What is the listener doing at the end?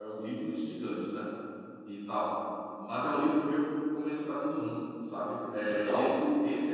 listening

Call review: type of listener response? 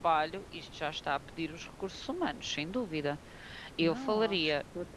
taking over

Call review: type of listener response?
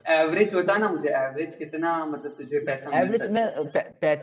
taking over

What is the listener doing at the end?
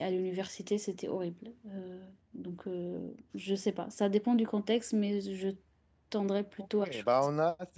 taking over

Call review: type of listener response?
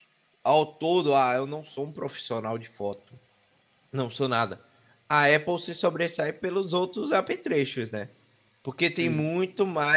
listening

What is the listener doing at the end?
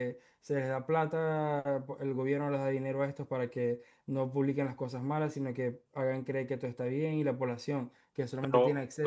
taking over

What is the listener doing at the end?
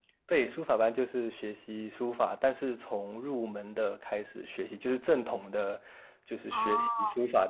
listening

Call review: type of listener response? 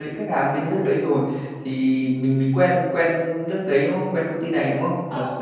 taking over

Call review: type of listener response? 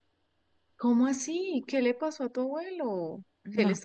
listening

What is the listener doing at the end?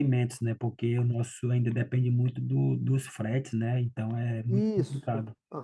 taking over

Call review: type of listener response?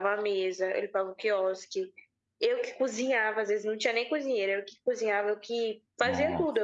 listening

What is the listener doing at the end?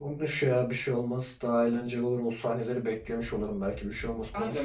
taking over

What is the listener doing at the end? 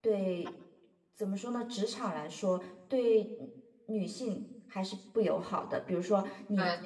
listening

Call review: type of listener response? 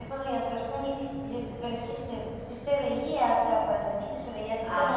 listening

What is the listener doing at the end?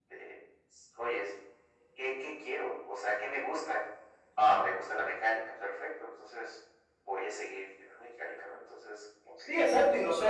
taking over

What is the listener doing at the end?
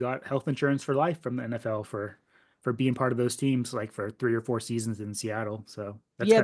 taking over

